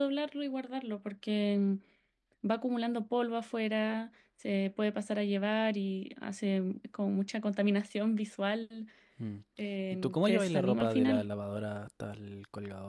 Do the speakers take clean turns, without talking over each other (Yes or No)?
No